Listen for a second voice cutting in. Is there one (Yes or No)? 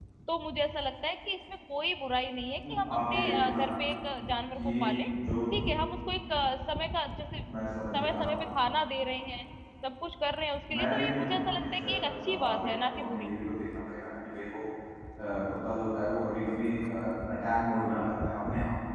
Yes